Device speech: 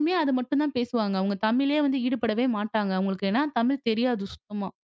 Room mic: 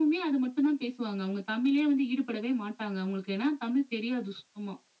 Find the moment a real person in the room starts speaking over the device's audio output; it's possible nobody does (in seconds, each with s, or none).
none